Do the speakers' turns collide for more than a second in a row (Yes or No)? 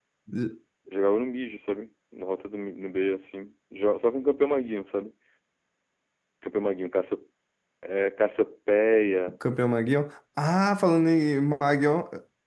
No